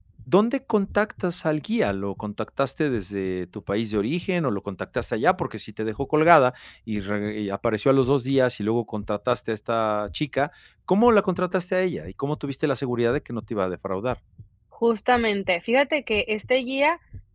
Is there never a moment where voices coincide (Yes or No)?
Yes